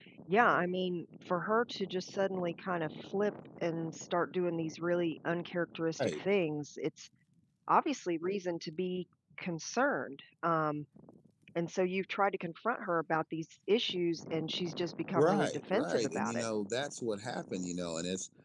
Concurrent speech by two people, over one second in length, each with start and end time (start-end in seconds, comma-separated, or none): 15.2-16.4